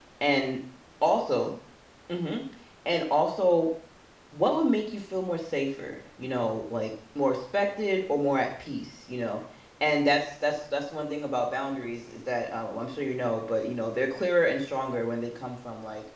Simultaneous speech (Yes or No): No